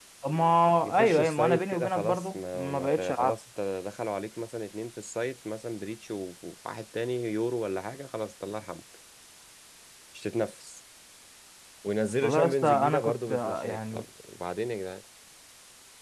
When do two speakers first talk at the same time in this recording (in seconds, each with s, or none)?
1.0 s